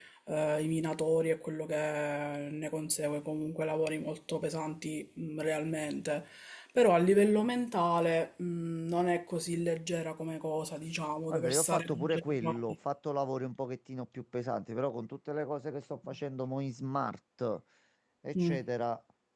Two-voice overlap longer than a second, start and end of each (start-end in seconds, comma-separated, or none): 11.3-12.6